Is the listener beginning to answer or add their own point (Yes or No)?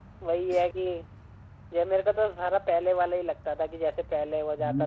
Yes